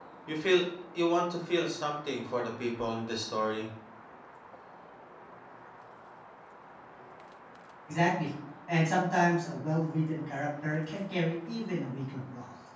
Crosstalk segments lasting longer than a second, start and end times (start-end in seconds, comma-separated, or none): none